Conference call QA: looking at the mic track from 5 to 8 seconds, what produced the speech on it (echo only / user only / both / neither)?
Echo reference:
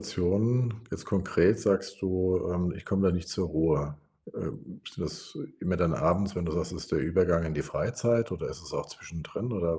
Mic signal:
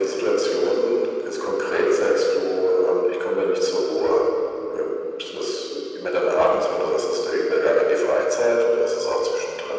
echo only